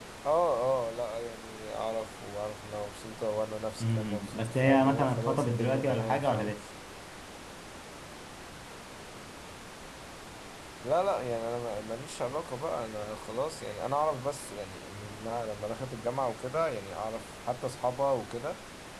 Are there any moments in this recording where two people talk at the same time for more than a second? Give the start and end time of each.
3.8-6.5

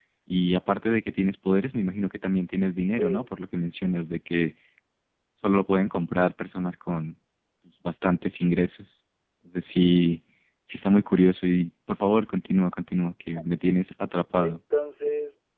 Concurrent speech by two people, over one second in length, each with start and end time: none

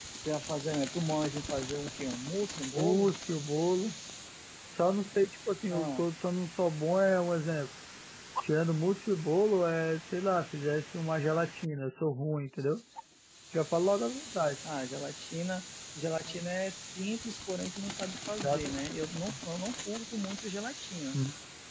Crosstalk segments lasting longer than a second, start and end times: none

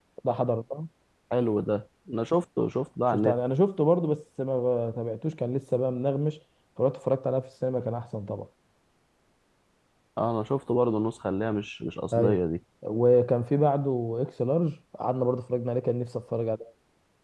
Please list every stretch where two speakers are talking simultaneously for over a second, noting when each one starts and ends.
none

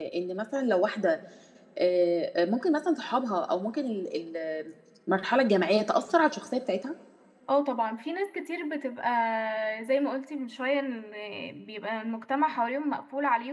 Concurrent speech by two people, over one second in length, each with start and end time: none

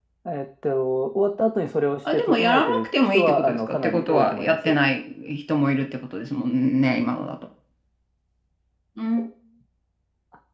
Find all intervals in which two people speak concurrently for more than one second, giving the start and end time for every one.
2.1-4.7

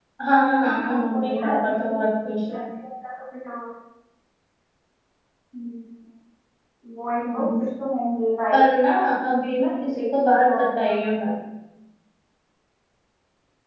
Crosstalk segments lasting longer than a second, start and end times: 0.7-1.9, 9.4-11.0

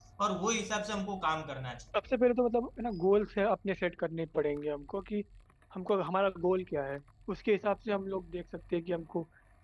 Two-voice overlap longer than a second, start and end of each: none

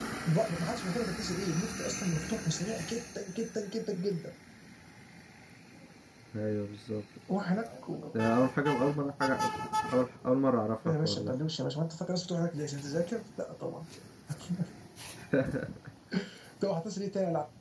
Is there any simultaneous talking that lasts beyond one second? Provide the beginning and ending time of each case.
none

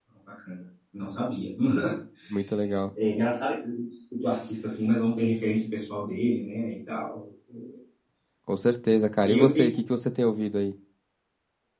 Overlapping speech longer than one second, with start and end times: none

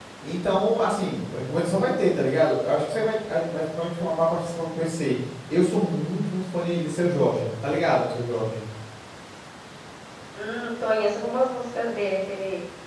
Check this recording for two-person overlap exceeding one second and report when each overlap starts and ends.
none

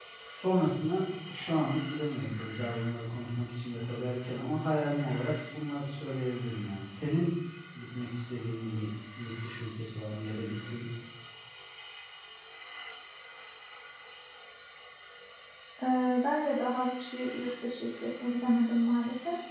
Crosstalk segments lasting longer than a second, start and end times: none

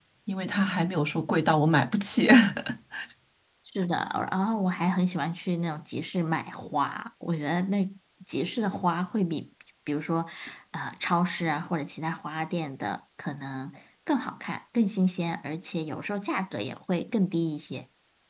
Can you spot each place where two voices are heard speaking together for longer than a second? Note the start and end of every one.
none

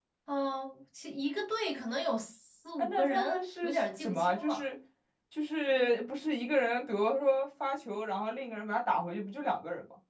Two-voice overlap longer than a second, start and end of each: 2.8-4.7

